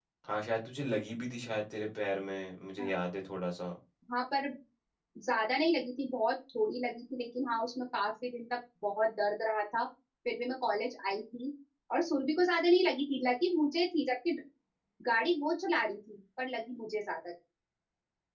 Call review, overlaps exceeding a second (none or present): none